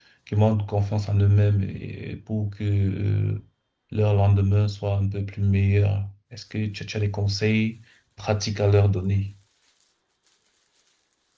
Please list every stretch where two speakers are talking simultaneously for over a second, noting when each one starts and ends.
none

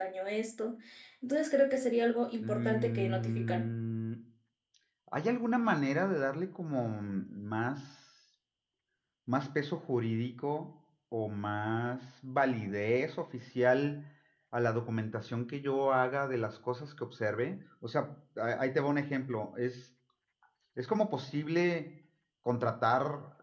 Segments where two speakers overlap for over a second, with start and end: 2.4-3.6

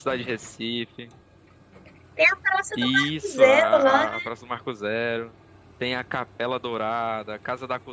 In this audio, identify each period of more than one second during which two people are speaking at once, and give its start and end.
2.8-4.1

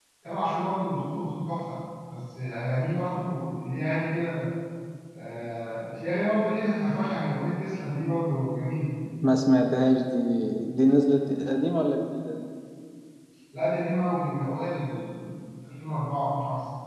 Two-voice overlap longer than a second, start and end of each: none

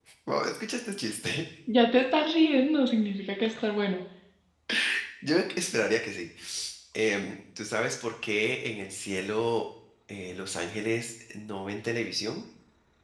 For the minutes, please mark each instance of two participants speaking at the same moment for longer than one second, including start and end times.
none

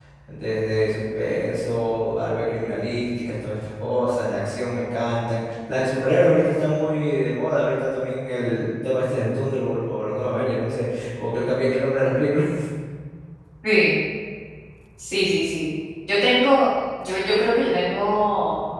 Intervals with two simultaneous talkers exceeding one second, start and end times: none

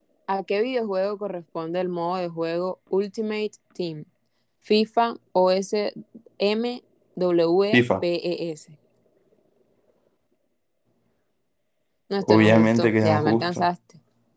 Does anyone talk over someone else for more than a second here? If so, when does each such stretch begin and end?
12.2-13.7

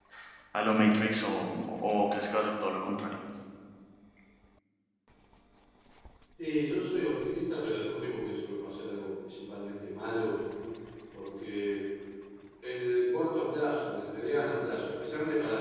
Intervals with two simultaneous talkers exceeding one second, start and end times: none

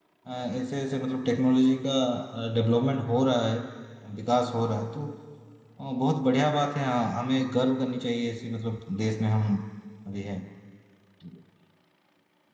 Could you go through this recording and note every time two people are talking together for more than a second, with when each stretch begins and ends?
none

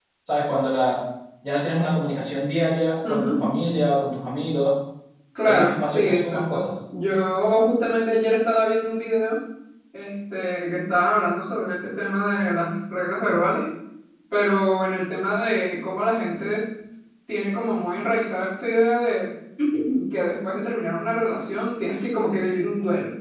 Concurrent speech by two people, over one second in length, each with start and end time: 5.5-6.7

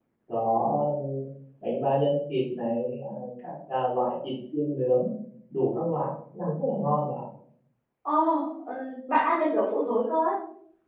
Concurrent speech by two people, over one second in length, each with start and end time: none

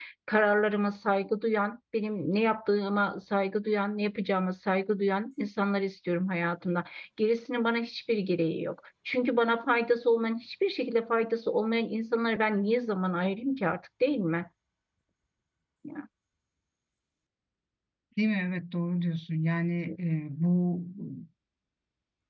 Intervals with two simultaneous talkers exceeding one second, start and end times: none

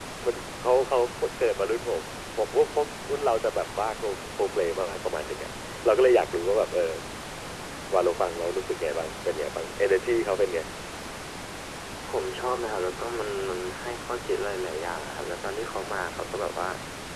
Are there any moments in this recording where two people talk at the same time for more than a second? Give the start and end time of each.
none

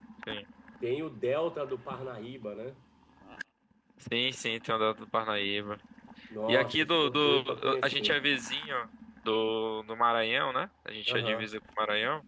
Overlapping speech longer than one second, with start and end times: 6.5-8.1

